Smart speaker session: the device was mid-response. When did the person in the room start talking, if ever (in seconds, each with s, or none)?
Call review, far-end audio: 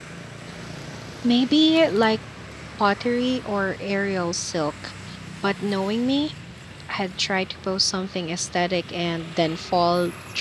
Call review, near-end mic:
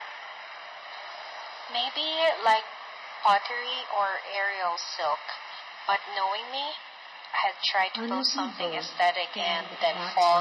7.9 s